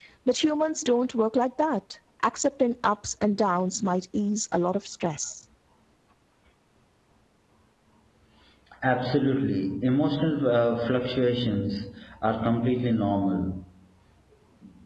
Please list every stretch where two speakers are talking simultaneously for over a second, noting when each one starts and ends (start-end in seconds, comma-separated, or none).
none